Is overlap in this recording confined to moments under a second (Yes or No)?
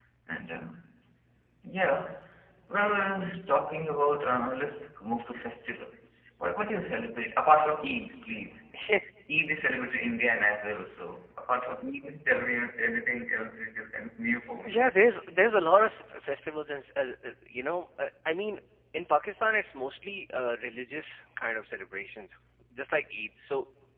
Yes